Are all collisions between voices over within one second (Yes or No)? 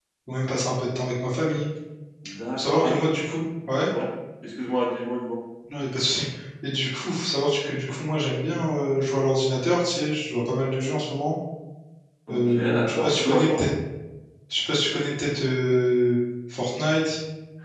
No